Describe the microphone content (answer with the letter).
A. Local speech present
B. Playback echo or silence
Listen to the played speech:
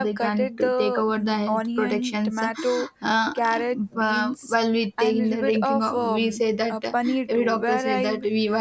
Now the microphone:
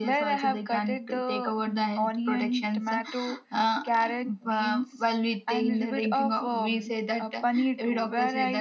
B